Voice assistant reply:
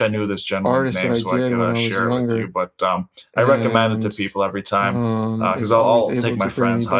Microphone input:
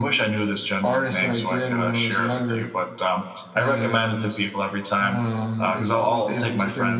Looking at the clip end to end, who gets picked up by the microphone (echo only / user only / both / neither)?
echo only